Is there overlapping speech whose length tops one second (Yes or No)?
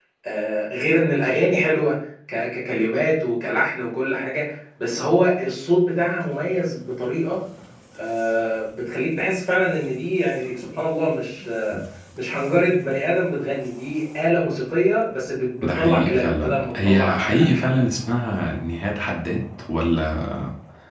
Yes